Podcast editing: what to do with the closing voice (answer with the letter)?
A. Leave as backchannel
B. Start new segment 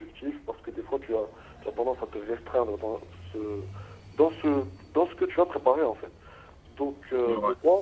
A